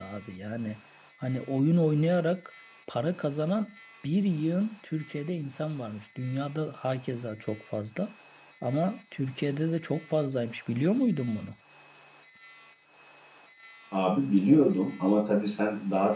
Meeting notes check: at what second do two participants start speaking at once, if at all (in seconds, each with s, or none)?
none